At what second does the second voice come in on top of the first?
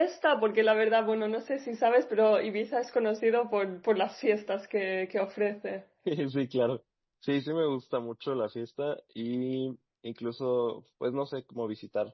none

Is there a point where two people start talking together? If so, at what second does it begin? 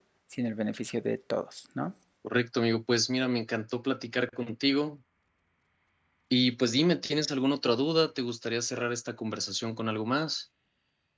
none

